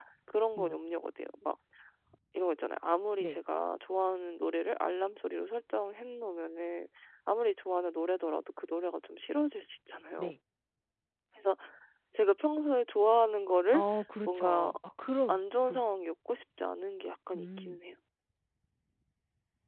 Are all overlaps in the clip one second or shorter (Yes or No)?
Yes